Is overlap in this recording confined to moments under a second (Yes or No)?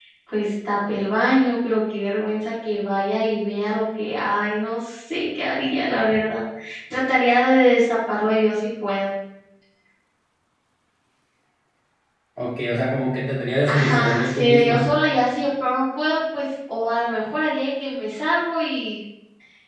No